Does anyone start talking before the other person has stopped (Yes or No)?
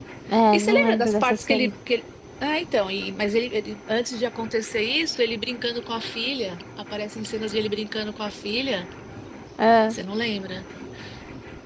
Yes